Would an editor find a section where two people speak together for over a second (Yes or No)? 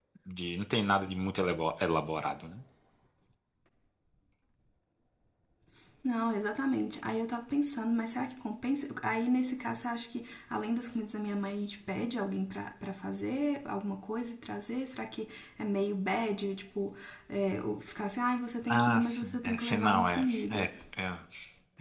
Yes